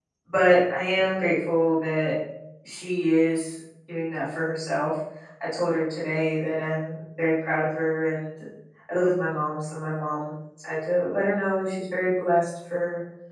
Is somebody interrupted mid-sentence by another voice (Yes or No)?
No